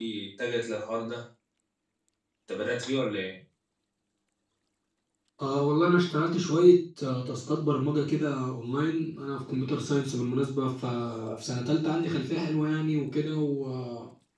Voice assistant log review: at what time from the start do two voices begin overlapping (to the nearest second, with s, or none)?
none